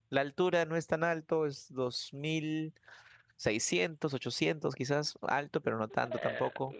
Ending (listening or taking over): taking over